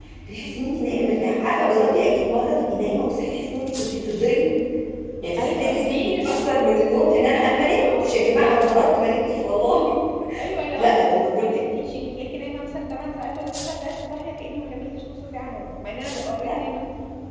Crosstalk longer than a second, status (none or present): present